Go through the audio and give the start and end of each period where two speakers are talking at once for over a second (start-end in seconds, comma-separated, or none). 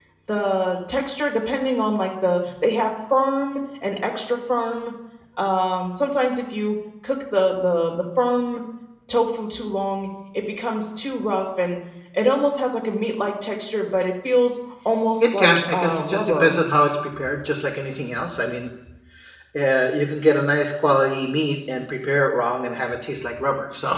15.2-16.6